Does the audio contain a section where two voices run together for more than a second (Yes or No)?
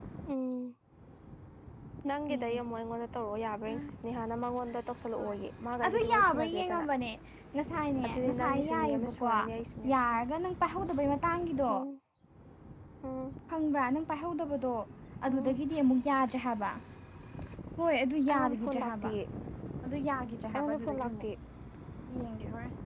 Yes